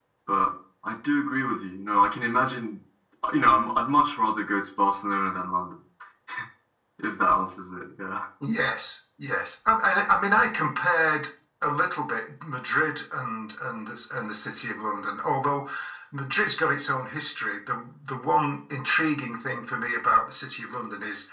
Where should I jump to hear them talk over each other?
none

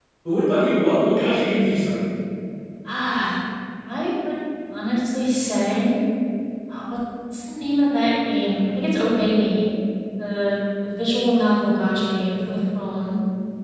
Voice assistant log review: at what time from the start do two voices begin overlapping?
none

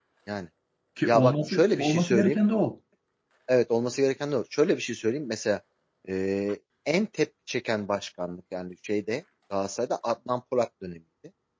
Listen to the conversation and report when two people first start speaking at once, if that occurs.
1.1 s

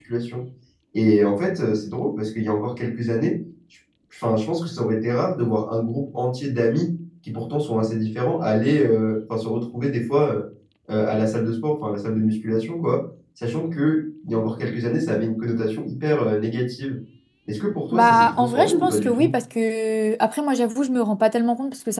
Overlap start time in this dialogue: 17.9 s

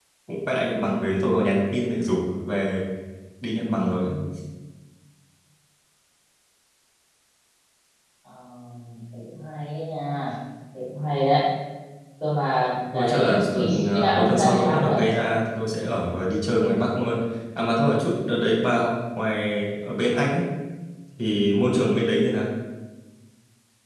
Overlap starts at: 12.9 s

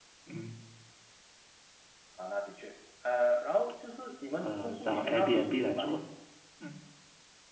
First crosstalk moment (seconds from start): 4.4 s

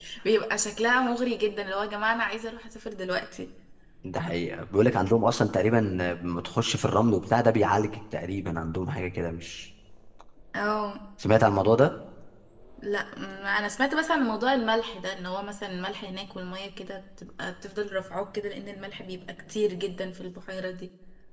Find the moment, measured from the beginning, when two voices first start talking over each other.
none

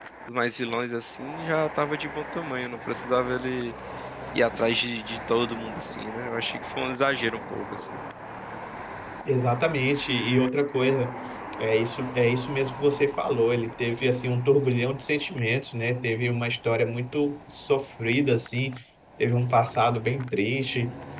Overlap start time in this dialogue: none

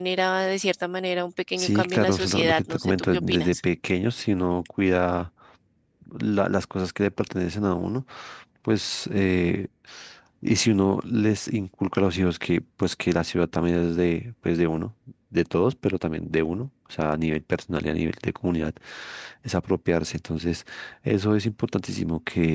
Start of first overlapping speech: 1.6 s

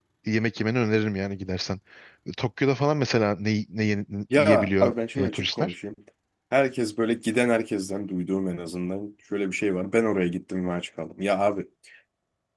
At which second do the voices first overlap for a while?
4.3 s

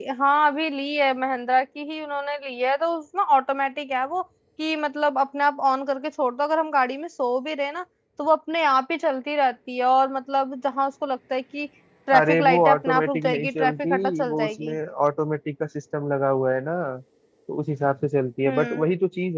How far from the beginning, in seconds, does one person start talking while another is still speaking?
12.2 s

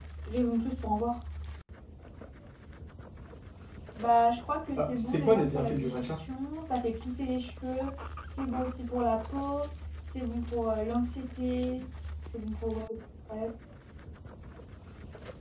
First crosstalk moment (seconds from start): 4.8 s

